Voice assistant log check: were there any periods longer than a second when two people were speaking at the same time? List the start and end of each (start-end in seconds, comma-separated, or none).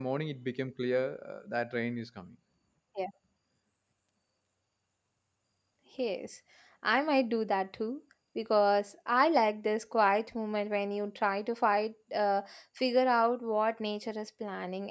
none